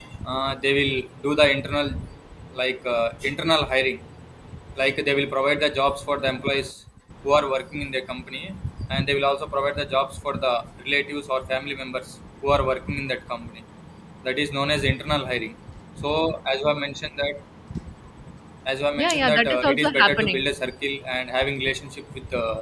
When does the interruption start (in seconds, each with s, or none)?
19.0 s